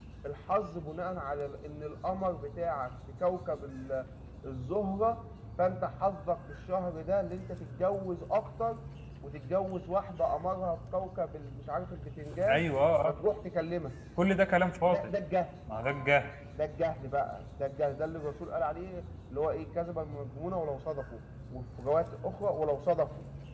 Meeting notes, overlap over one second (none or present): none